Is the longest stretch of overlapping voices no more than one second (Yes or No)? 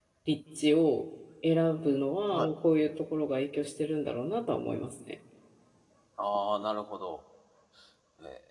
Yes